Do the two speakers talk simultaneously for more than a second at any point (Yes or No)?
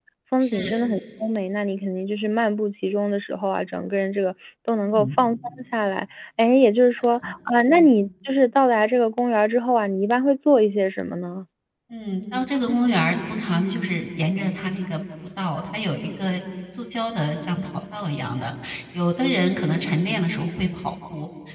No